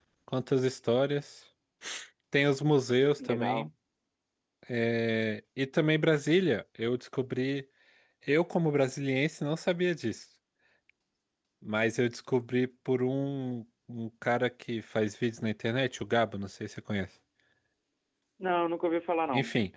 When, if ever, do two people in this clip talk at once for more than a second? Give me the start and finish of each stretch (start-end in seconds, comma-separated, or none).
none